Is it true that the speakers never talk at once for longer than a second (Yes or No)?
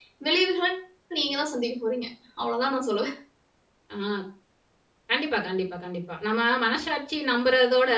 Yes